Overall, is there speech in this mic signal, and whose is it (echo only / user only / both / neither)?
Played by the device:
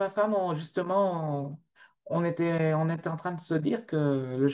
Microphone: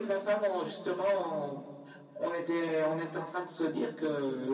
echo only